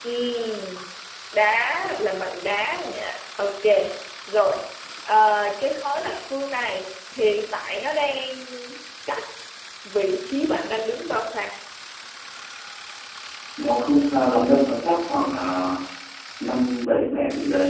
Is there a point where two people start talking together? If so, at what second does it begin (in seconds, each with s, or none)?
none